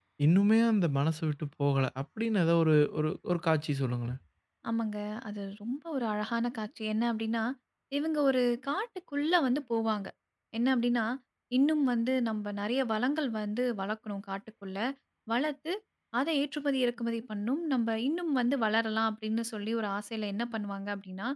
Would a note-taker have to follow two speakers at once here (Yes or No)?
No